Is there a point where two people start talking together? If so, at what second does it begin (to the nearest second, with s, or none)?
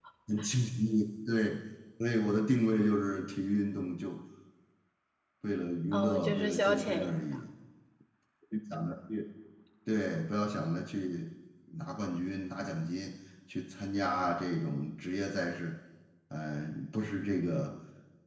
6 s